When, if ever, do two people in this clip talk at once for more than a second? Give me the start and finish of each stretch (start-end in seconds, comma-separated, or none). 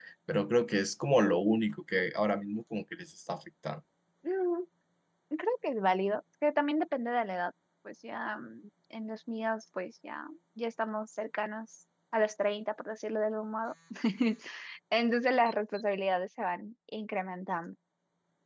none